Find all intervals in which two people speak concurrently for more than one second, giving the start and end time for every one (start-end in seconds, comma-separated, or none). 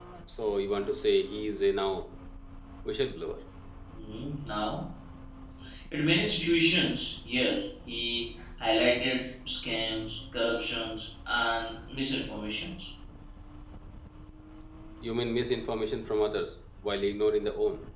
none